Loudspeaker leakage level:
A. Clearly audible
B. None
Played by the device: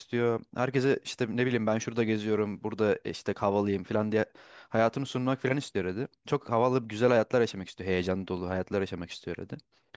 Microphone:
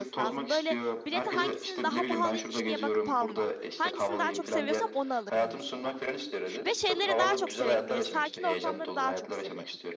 A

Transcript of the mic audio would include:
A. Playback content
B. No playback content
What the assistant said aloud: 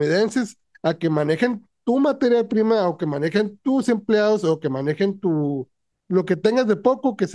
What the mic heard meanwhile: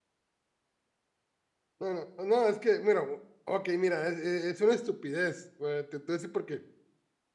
B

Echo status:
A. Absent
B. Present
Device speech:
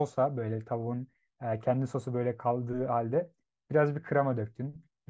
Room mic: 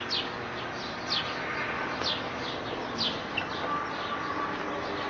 A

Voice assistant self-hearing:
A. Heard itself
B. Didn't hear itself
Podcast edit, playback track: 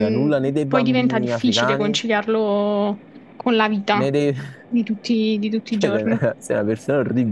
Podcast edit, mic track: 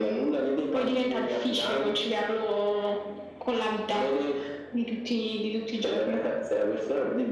A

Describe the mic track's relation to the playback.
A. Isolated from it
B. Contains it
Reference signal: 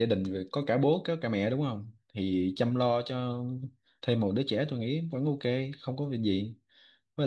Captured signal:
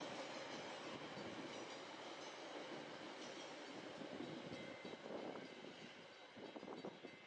A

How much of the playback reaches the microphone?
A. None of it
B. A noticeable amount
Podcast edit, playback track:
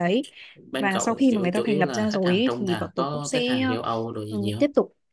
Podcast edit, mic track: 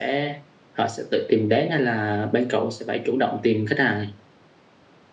A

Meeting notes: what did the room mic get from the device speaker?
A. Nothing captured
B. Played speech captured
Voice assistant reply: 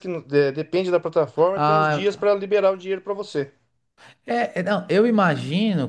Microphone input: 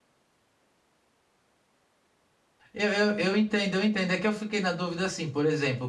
A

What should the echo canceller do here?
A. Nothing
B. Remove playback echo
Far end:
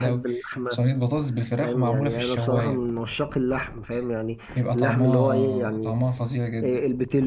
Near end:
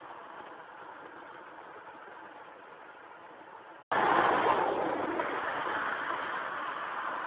A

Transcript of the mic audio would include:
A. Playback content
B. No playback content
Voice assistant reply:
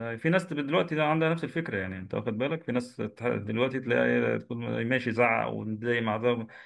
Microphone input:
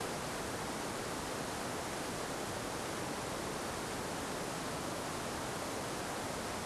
B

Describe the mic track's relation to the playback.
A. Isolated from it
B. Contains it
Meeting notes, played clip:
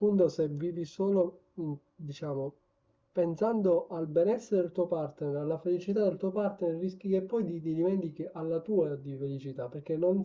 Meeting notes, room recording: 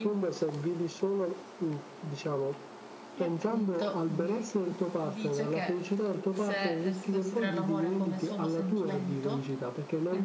B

